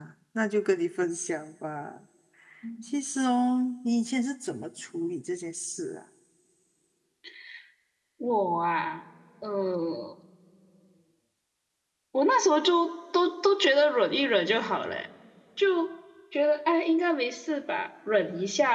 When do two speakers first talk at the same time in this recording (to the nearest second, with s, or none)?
none